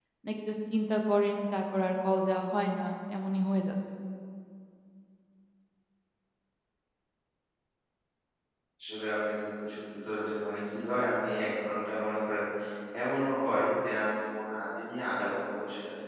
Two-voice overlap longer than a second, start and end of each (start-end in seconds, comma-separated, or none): none